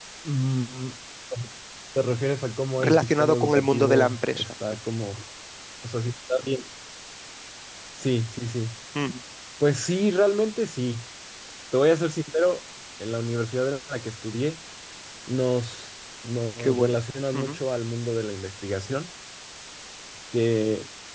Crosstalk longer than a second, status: present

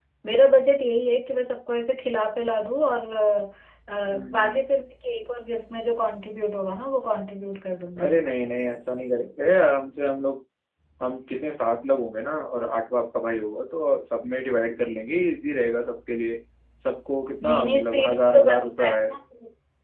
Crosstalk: present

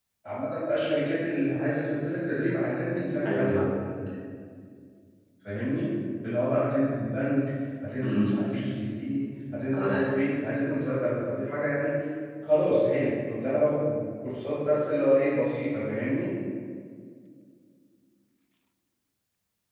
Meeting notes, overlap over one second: none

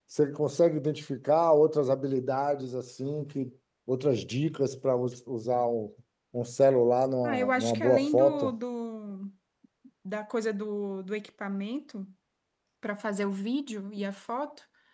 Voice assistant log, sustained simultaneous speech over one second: present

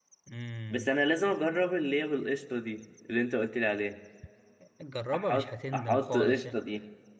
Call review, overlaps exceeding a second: present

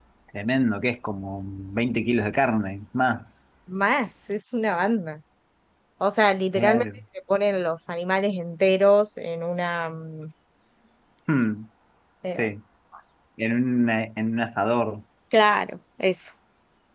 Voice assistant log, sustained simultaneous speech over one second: none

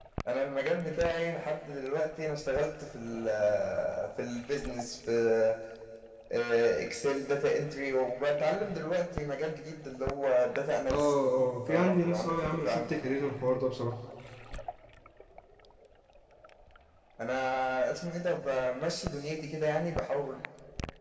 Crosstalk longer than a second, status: present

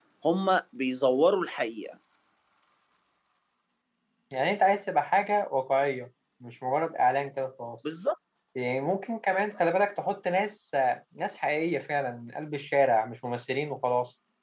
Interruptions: none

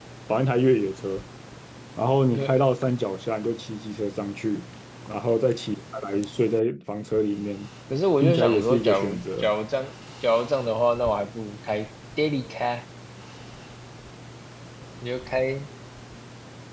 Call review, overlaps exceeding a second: present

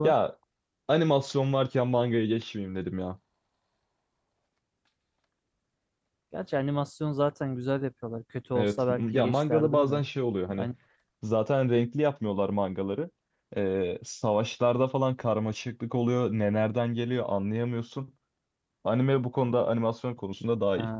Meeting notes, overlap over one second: present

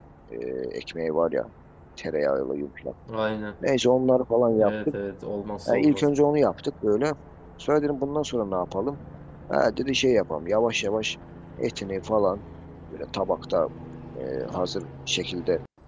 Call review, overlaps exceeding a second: none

